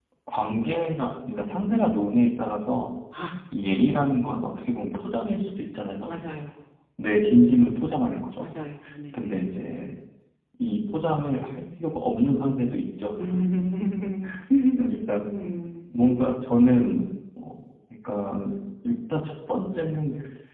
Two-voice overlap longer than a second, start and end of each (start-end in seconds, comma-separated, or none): none